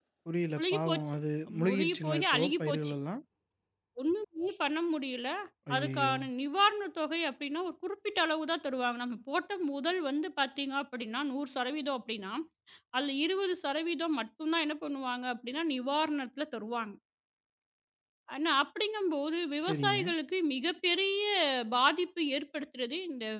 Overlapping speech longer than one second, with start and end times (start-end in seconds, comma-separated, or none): 1.6-2.9